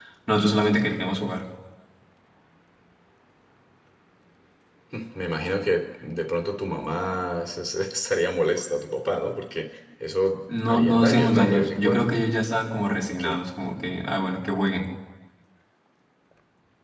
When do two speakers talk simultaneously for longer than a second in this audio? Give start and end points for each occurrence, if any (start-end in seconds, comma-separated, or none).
10.7-12.1